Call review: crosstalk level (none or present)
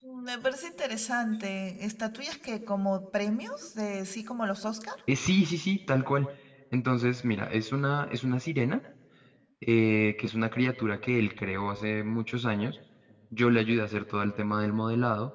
none